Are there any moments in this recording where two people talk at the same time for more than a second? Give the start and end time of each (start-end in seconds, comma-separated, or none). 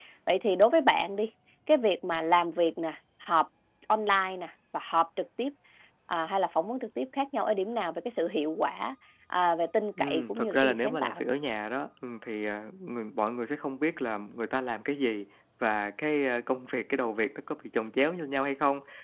10.0-11.2